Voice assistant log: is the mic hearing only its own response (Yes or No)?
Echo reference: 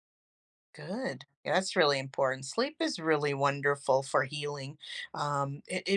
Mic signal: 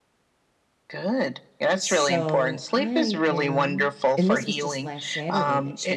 No